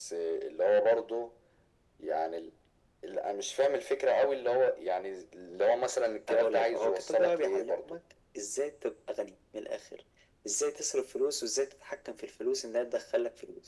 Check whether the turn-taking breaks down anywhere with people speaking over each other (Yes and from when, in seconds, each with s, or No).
Yes, from 6.3 s